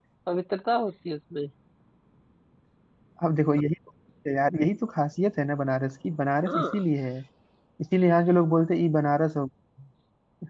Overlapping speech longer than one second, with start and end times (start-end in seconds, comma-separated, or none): none